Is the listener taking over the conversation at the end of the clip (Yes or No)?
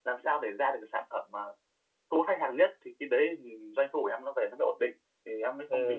Yes